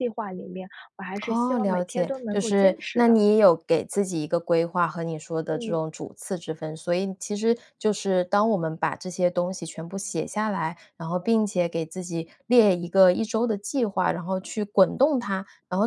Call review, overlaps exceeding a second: present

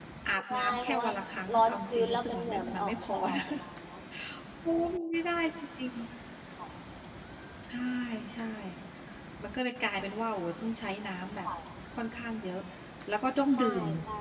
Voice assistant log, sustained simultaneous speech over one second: present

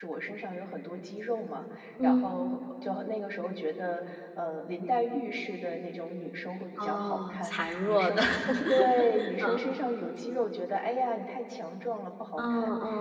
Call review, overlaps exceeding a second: present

